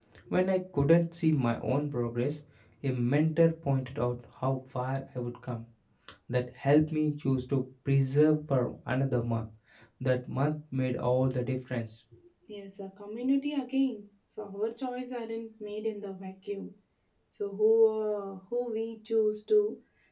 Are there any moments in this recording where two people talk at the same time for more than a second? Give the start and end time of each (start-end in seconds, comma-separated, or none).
none